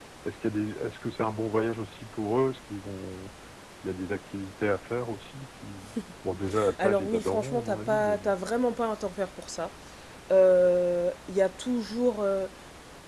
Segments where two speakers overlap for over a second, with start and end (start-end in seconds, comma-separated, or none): 6.8-8.2